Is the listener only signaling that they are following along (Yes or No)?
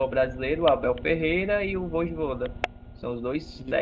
Yes